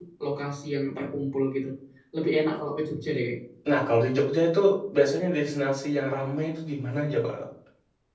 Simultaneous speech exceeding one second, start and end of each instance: none

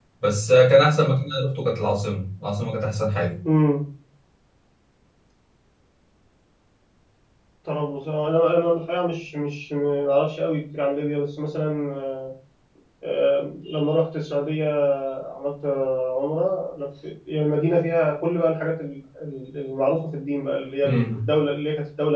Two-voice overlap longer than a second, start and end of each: none

